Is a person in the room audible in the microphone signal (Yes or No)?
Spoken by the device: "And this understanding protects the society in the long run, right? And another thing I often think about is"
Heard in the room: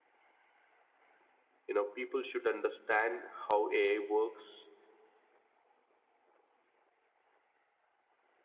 Yes